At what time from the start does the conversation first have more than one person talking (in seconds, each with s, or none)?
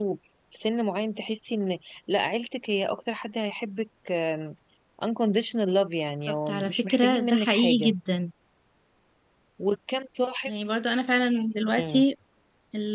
6.3 s